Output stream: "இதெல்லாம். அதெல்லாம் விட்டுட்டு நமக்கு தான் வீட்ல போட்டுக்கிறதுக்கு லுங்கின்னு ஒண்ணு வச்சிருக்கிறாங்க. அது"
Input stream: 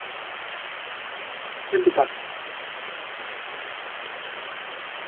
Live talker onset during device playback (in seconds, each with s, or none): 1.7 s